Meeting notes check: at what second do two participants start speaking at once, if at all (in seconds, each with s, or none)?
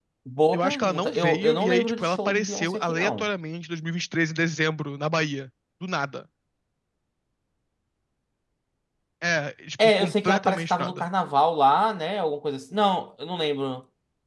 0.5 s